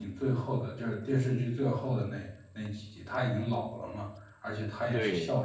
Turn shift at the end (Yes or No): No